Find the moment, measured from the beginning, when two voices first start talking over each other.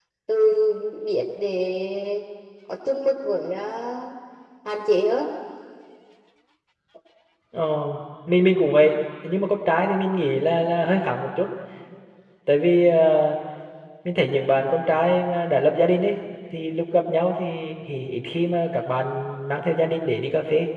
none

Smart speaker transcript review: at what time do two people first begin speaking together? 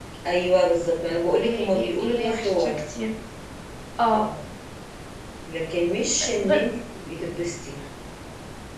1.4 s

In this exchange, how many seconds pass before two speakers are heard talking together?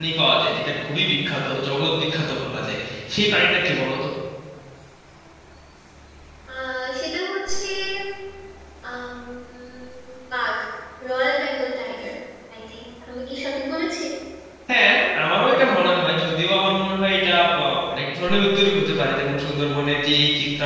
none

